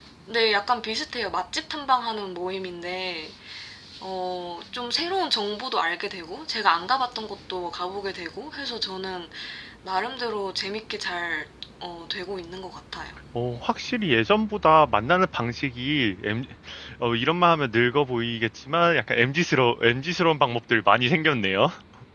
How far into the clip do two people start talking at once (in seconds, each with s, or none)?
none